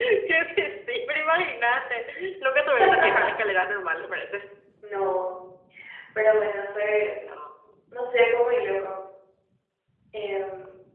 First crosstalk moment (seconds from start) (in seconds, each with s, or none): none